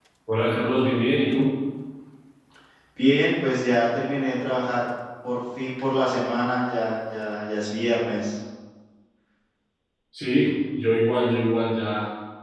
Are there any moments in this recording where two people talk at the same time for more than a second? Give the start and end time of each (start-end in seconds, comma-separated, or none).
none